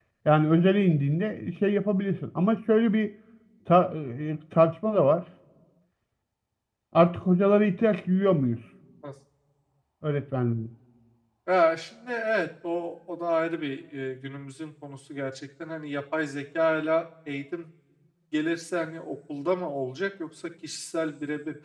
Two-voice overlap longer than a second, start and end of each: none

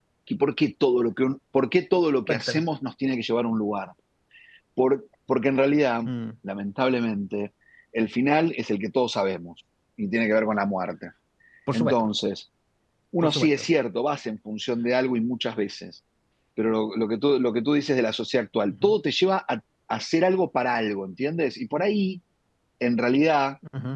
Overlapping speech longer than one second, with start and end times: none

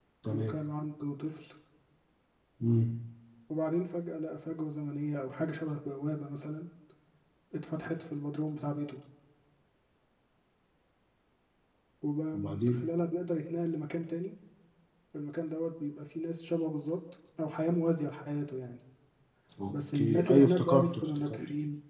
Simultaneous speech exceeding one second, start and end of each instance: 19.7-21.4

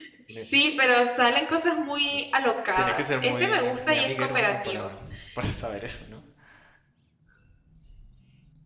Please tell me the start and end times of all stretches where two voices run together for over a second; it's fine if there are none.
2.7-4.9

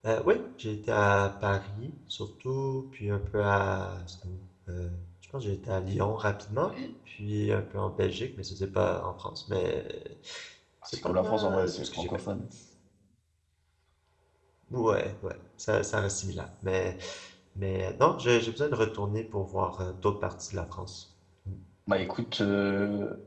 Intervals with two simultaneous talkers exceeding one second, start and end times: 10.8-12.2

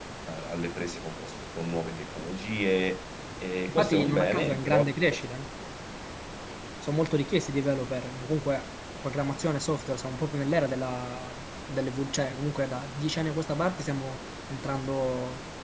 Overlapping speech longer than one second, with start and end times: 3.7-4.9

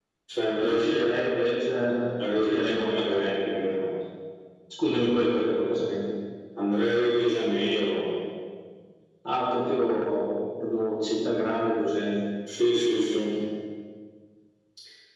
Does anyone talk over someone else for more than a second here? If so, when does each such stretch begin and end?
2.3-3.7

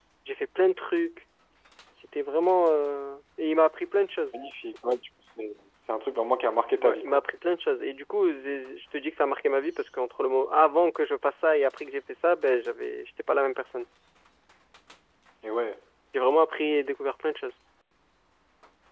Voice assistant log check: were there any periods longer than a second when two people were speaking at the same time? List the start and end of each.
none

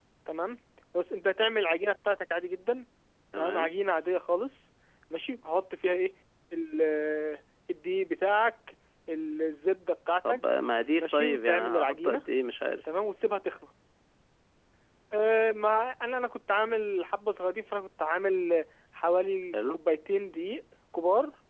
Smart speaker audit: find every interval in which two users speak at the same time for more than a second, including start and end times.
11.0-12.2

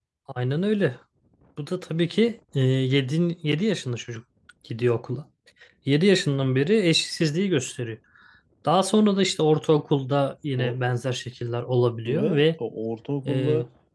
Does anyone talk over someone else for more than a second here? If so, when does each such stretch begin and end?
none

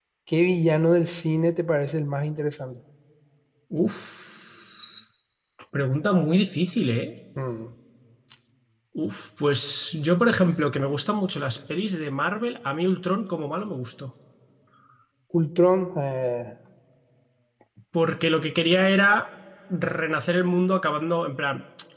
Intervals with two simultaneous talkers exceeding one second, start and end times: none

